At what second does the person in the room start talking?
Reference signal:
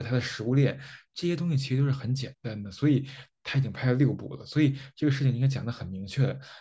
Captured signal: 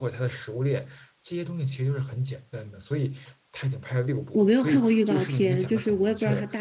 4.3 s

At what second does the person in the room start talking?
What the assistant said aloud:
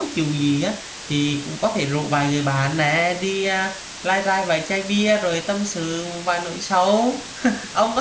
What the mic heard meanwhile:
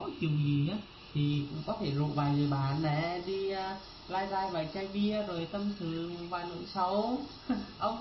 none

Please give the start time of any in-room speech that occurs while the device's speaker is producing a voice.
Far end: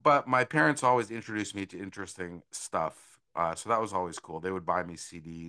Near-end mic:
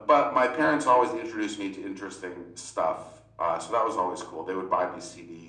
none

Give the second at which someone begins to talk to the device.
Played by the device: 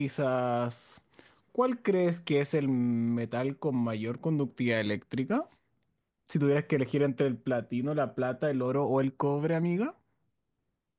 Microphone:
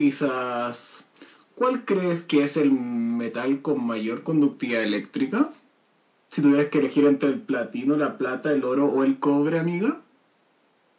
none

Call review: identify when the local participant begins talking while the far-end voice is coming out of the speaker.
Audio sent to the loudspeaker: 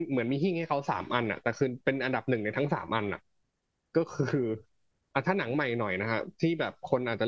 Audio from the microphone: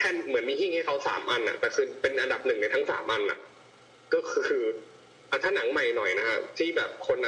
none

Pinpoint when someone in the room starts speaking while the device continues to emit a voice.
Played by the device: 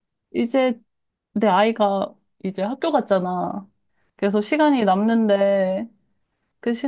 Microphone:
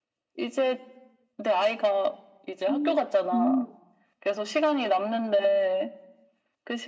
2.7 s

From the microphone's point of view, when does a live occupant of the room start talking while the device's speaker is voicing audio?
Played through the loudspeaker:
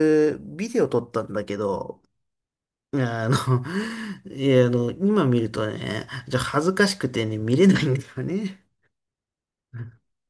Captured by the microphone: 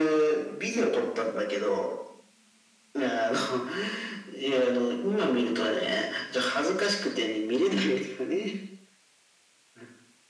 0.7 s

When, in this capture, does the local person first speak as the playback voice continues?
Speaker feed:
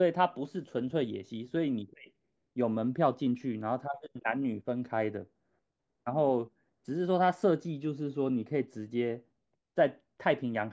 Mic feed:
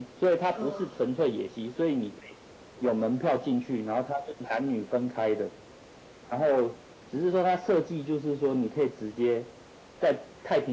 0.5 s

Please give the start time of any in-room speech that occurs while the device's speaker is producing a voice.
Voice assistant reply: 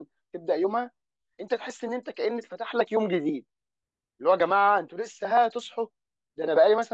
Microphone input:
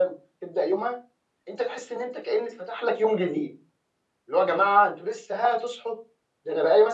none

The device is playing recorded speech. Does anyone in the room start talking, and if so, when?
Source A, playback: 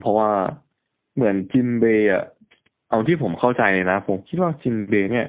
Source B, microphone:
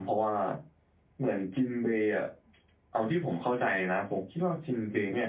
none

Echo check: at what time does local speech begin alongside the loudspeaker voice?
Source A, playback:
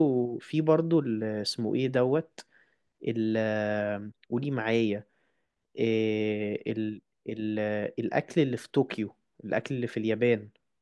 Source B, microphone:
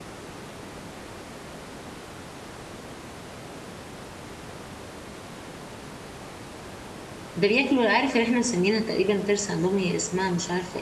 7.3 s

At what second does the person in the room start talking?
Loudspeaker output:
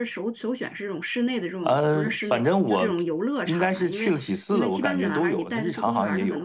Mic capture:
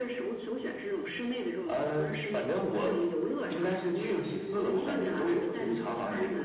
3.9 s

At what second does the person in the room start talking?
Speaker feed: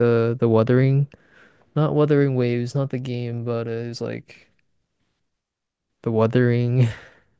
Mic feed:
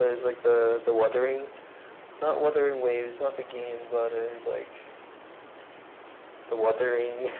none

